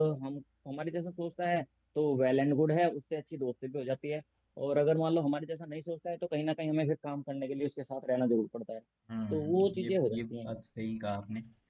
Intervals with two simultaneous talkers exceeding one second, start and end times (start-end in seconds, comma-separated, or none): 9.3-10.5